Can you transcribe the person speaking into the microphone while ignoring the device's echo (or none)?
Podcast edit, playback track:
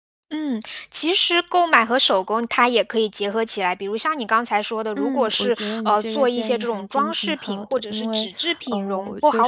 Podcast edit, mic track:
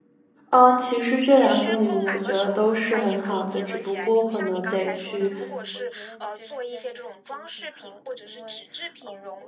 嗯，其实这两种礼物我觉得都是很好的，只不过可能得去，